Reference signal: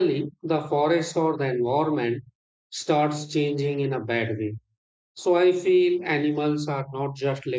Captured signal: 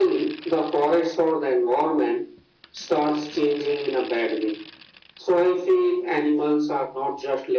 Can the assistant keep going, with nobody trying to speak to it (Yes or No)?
Yes